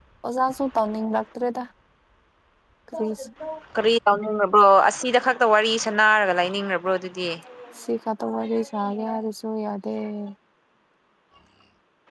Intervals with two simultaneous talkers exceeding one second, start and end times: none

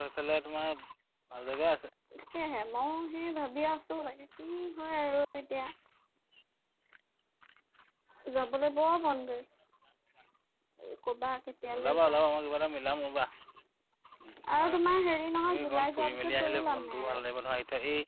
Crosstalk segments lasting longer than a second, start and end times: 15.5-17.2

